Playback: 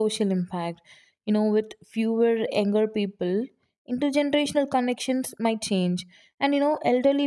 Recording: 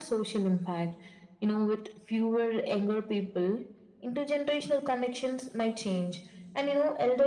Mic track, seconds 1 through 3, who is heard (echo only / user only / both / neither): echo only